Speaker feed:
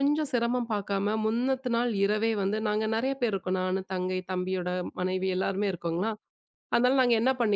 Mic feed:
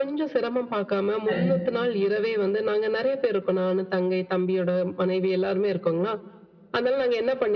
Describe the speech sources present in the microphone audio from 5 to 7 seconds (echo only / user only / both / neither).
echo only